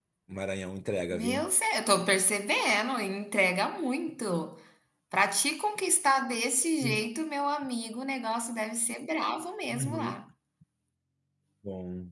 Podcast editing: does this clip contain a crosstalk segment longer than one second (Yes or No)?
No